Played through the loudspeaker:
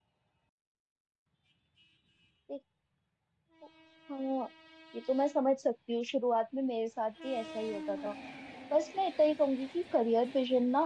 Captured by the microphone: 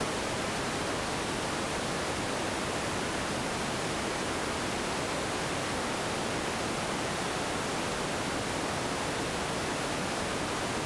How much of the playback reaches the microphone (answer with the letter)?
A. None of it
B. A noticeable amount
A